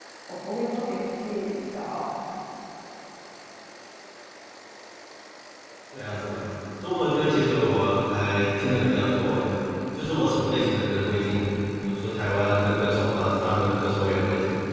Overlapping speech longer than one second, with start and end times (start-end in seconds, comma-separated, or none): none